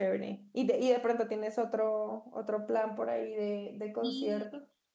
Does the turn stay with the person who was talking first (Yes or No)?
No